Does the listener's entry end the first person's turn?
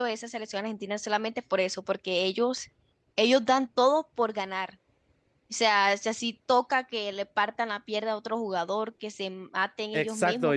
Yes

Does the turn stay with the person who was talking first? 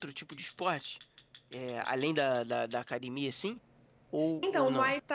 No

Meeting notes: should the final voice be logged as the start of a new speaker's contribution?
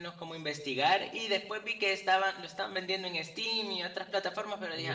Yes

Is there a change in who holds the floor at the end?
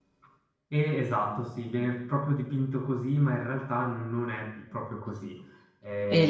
Yes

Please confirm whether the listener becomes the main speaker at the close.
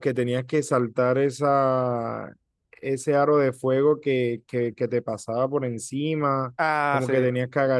No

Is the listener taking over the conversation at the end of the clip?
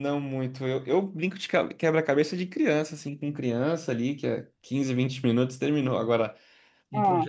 No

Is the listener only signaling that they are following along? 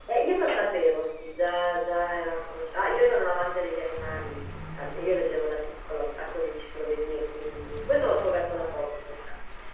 Yes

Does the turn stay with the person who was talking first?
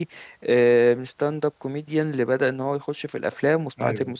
No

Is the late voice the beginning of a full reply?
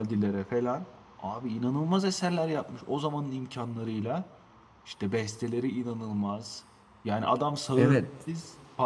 No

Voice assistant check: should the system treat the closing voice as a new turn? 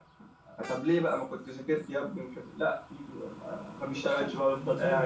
Yes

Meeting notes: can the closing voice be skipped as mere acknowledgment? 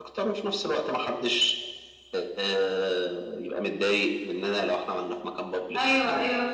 No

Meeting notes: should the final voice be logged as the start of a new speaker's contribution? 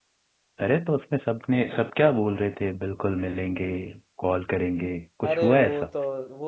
Yes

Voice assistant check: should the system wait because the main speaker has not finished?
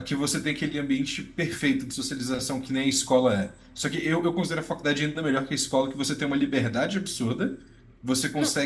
Yes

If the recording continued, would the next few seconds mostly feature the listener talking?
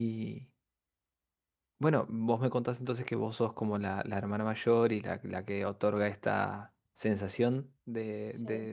No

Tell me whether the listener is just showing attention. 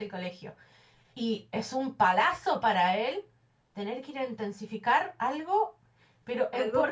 No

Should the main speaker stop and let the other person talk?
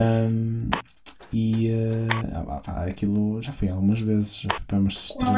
Yes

